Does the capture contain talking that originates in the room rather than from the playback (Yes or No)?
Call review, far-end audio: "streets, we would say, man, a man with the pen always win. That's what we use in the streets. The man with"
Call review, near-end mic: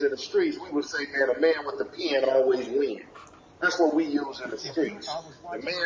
Yes